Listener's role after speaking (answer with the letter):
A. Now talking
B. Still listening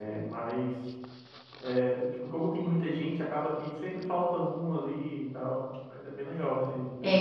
A